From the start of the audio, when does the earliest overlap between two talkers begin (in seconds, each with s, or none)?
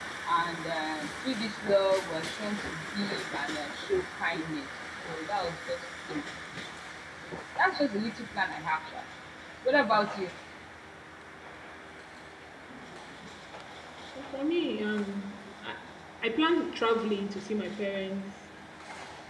none